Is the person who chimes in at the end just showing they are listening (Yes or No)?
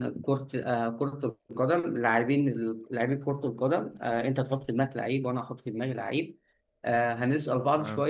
Yes